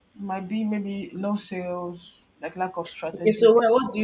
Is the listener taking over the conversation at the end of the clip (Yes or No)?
Yes